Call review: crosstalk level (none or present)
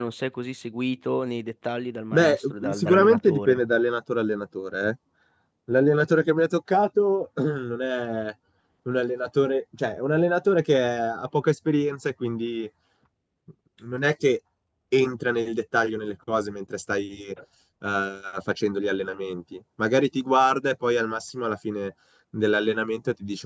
present